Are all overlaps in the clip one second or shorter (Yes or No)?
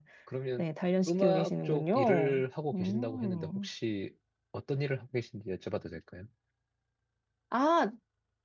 No